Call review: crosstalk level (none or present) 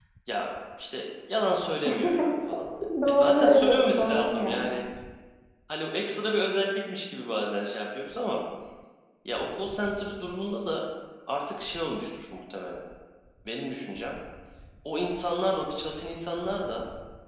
present